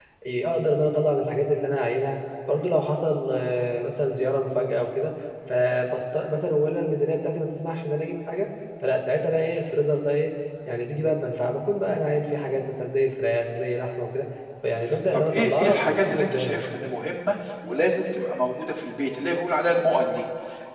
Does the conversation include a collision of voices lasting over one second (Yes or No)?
Yes